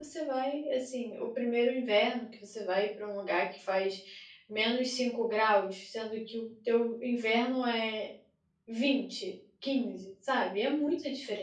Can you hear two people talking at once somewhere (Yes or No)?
No